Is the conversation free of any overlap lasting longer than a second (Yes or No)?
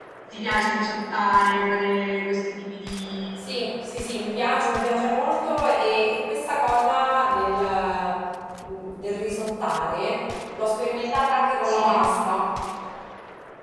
Yes